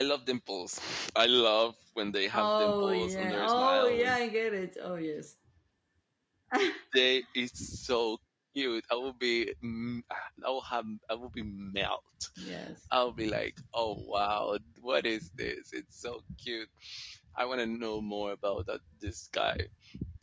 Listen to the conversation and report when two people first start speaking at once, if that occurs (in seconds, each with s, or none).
2.3 s